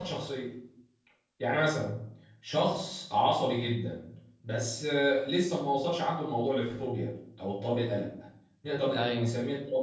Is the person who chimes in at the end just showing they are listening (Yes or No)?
Yes